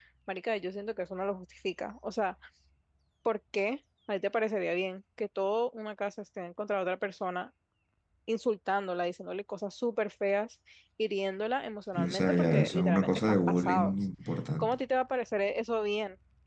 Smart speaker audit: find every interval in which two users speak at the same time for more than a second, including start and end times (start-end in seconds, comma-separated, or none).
11.9-14.0